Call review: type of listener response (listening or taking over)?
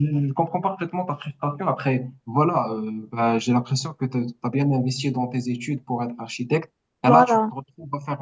listening